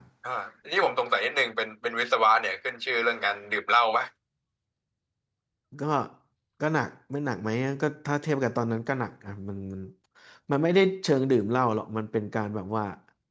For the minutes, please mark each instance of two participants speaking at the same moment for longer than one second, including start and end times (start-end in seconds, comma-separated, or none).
none